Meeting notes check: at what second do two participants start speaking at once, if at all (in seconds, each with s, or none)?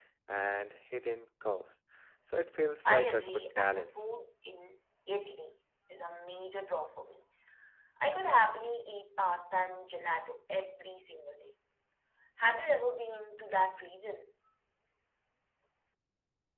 2.8 s